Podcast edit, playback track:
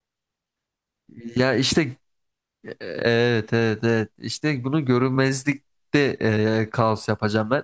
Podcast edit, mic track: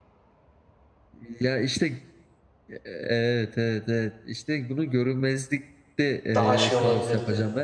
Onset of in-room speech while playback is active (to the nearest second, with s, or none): 6 s